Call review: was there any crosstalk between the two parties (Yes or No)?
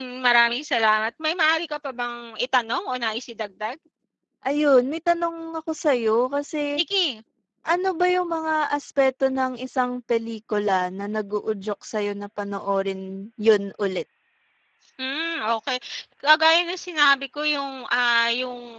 No